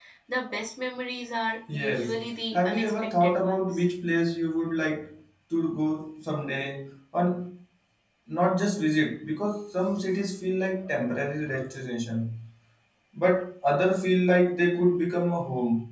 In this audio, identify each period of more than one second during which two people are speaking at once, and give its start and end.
2.5-3.9

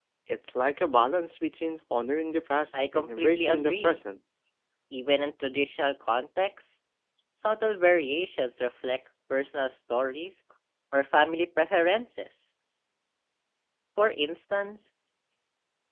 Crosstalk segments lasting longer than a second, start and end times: 2.7-4.0

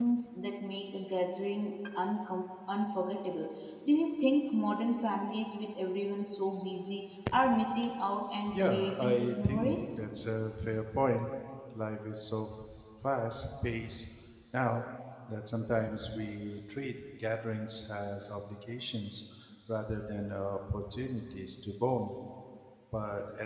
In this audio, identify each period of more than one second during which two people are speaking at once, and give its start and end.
8.5-10.0

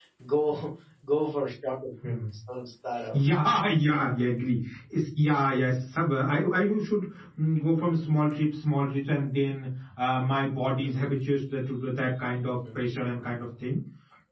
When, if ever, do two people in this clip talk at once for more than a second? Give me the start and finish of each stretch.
none

